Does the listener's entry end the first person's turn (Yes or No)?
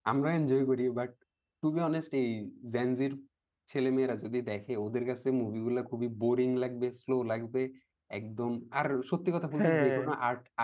No